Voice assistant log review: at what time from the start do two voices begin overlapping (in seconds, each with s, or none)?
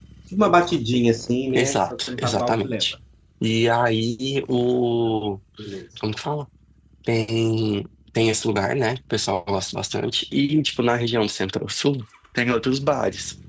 1.6 s